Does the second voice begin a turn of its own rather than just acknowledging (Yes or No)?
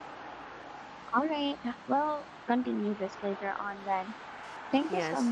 Yes